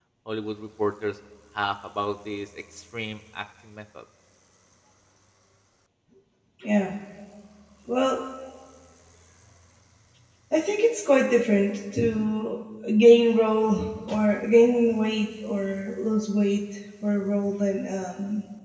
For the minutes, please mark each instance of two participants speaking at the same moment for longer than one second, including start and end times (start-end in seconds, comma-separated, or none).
none